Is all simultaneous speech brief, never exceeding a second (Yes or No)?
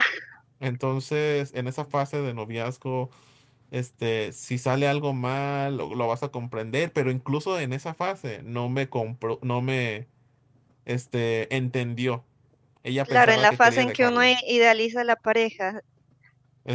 No